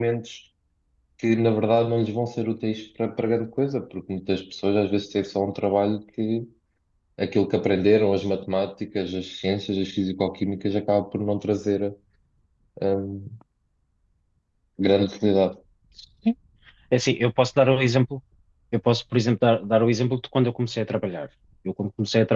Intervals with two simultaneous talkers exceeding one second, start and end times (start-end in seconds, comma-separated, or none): none